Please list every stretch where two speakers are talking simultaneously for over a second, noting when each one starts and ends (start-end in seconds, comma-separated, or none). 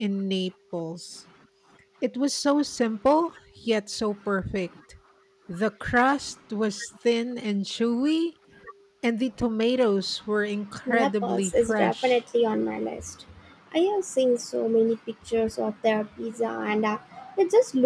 10.9-12.2